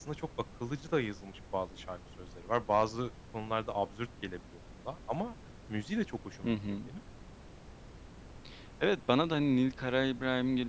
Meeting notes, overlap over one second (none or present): none